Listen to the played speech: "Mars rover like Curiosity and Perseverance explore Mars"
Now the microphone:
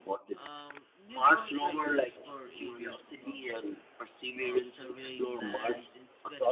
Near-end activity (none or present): present